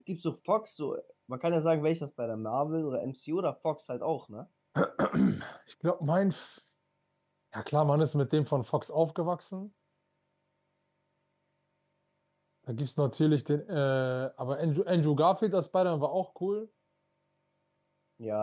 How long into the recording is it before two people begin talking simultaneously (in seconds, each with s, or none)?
none